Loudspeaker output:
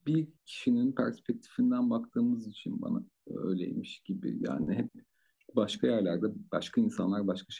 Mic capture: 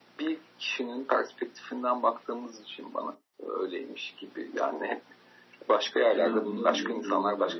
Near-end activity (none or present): present